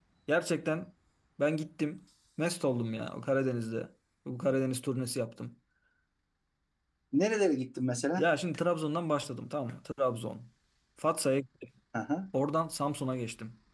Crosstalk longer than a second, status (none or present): none